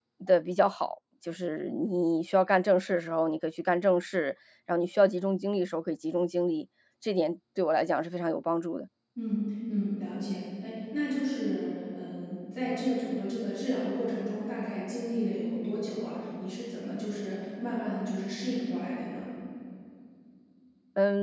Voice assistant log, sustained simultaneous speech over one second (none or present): none